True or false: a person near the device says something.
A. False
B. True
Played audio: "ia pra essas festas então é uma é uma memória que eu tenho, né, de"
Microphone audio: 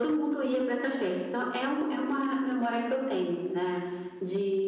A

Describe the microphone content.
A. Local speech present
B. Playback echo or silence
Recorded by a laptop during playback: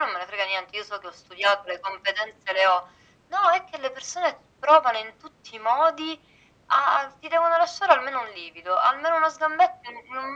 B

